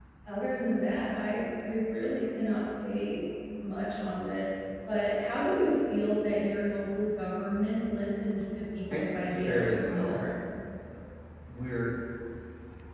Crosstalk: present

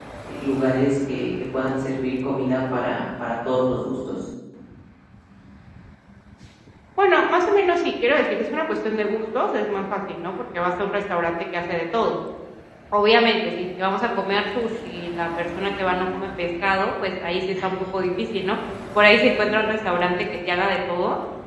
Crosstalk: none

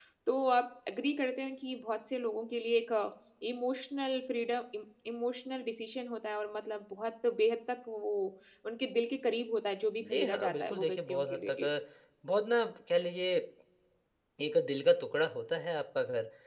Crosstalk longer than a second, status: present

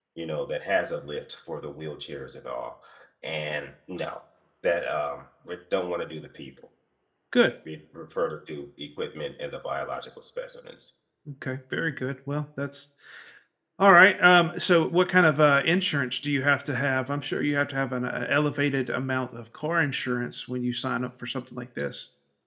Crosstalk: none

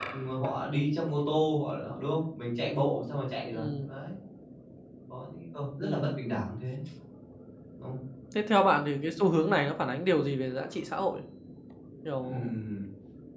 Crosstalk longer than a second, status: none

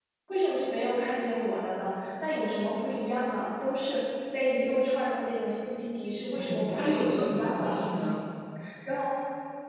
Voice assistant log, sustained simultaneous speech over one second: present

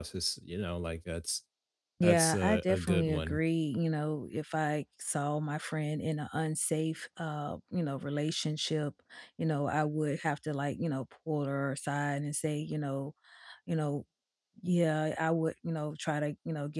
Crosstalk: present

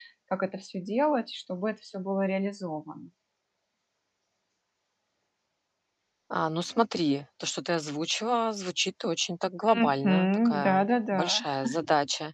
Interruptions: present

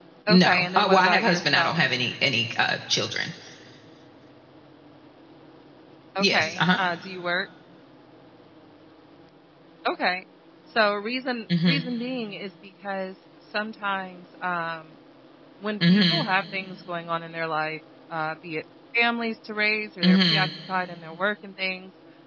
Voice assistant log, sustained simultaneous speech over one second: present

